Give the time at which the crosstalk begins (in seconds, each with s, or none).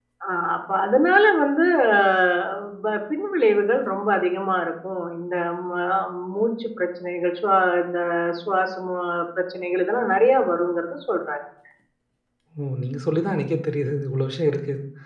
none